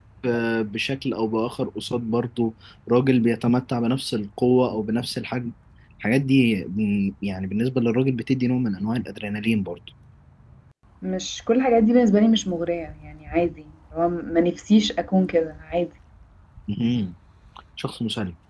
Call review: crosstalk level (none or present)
none